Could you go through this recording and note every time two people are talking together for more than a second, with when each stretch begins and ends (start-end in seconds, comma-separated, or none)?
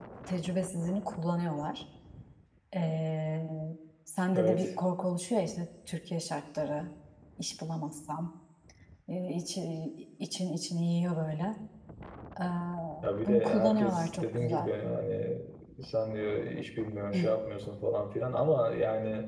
13.2-14.7